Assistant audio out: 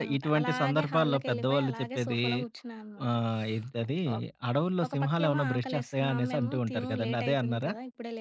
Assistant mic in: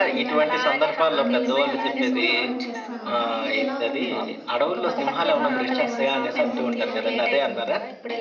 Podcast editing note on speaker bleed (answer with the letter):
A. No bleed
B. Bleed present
B